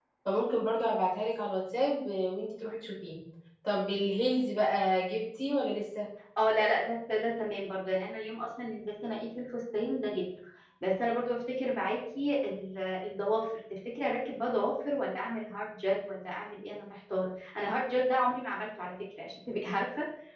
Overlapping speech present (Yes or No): No